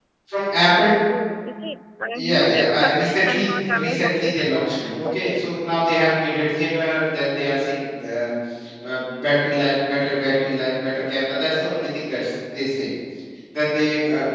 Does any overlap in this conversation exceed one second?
Yes, from 2.1 s

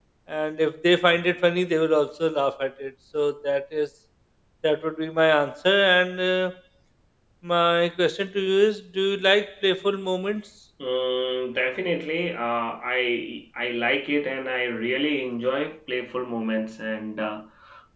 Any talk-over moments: No

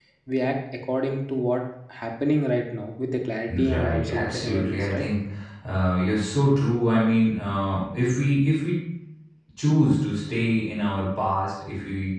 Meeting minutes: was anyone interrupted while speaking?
Yes, from 3.5 s

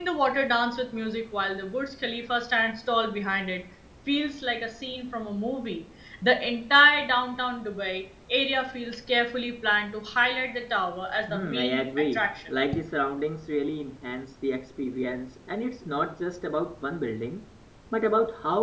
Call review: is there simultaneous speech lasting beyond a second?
Yes, from 11.3 s

